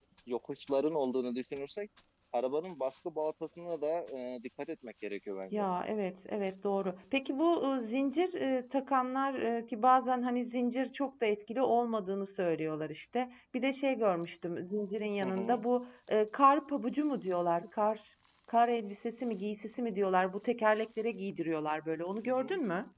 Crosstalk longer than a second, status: none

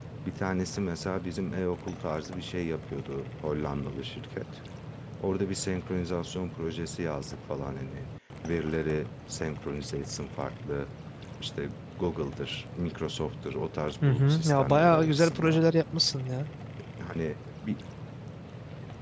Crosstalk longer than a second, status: present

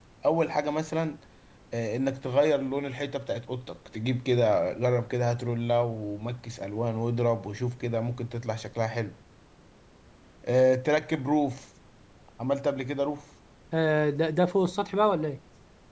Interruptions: none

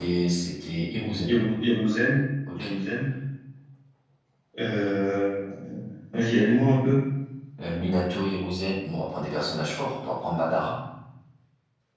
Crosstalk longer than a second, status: none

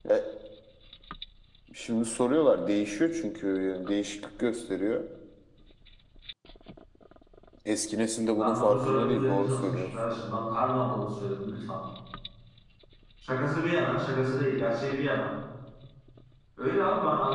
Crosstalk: present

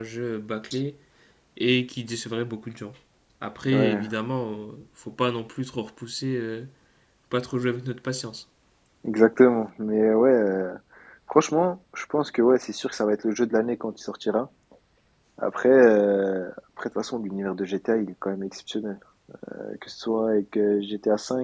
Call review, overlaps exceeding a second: none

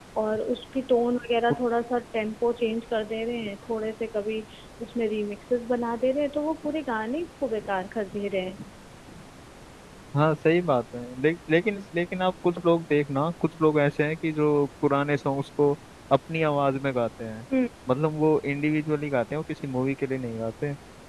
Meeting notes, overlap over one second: none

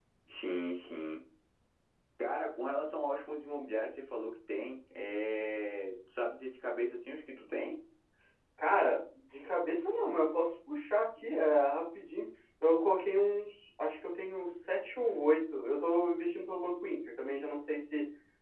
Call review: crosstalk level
none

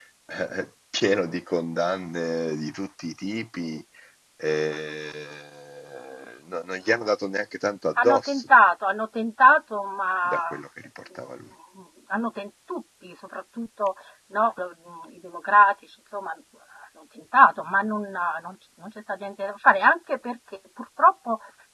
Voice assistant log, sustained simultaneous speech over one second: none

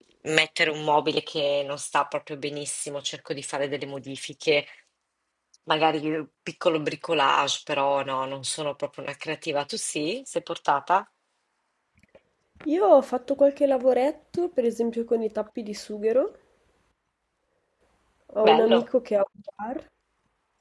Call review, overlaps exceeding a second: none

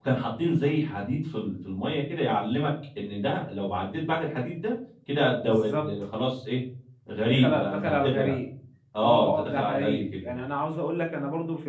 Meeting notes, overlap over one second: present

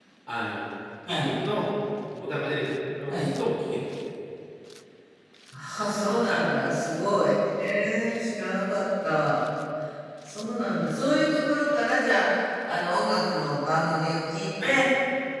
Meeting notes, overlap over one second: none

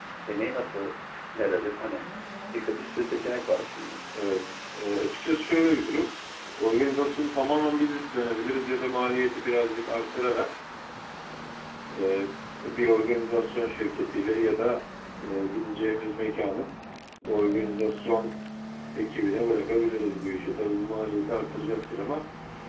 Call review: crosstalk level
none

